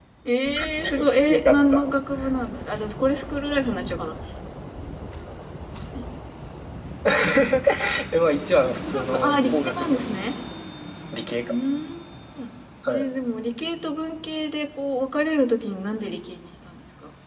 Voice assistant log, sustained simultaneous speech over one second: present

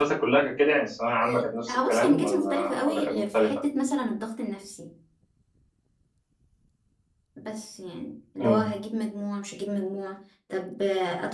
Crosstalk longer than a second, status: present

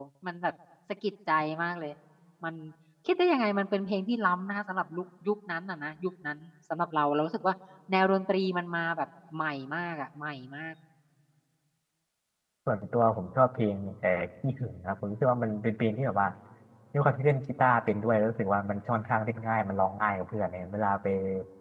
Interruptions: none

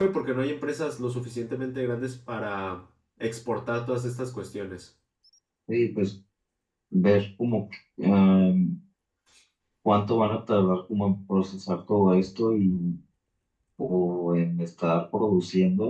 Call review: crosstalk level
none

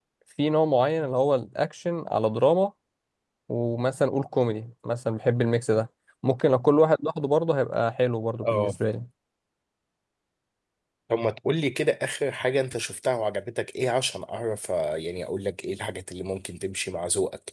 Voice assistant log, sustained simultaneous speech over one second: none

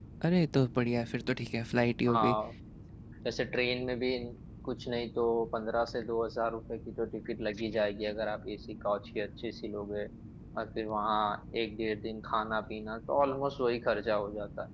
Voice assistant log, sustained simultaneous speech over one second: none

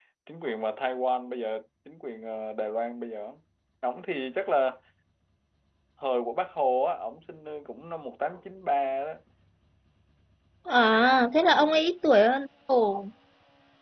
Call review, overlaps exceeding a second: none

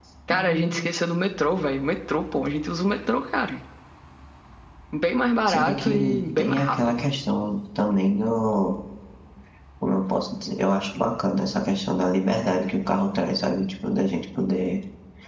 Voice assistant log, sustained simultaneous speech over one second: present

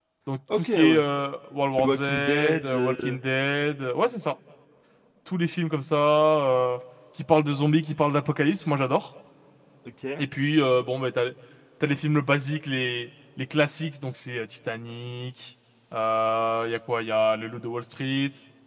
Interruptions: present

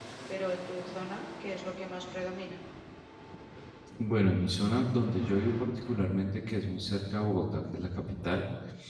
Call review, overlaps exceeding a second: none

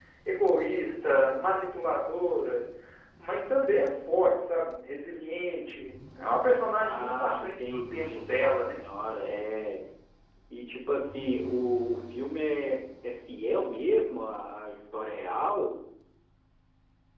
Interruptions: present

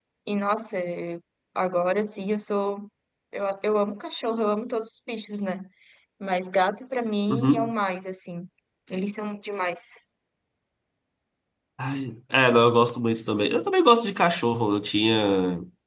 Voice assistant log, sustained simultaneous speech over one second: none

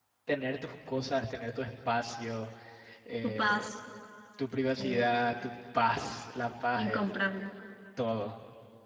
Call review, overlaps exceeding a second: none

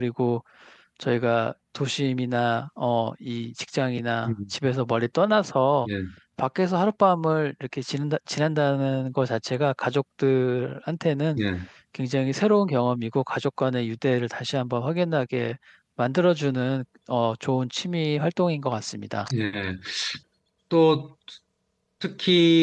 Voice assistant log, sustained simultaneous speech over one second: none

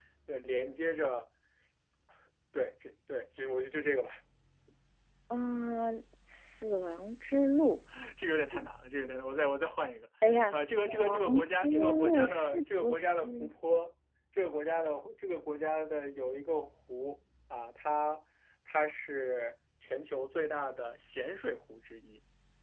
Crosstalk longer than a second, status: present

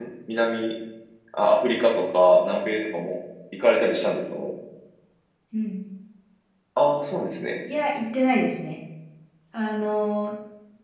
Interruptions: none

